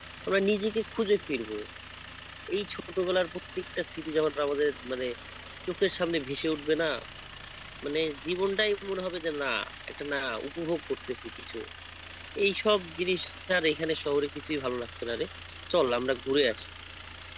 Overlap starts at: none

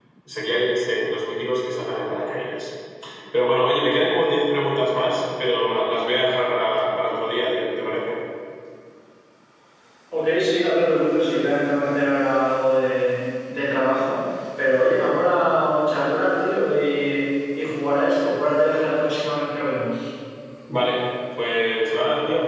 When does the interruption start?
none

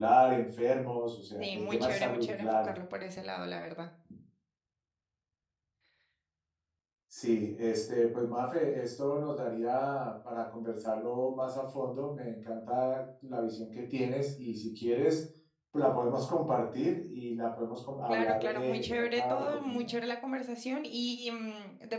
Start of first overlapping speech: 1.4 s

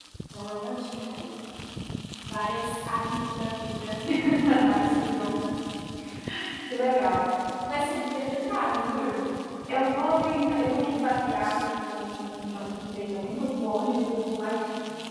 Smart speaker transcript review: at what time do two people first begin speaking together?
none

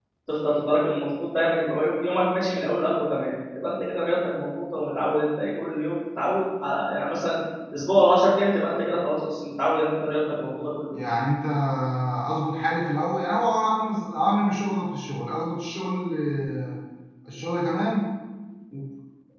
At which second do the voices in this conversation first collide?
none

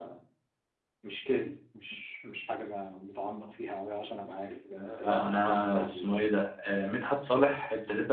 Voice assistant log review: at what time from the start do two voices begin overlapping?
4.8 s

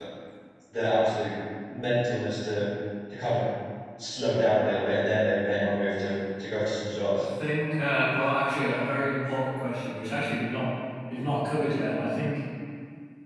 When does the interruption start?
none

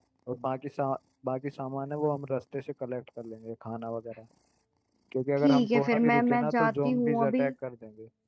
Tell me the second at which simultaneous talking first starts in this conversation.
5.4 s

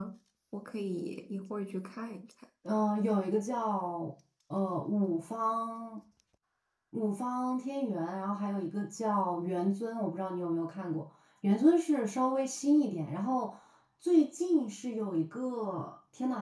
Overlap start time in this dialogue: none

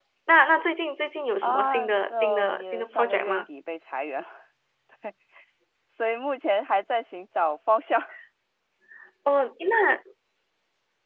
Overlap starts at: 1.4 s

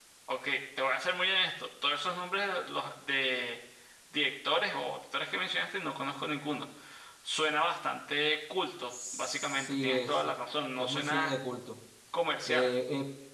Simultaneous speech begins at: 8.9 s

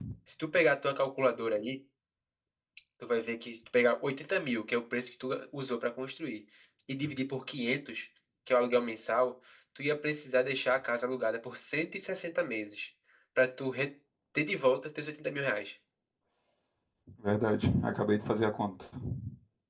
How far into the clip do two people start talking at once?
none

